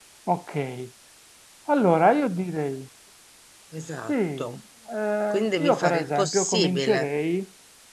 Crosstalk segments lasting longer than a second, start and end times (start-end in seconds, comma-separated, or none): 5.3-7.1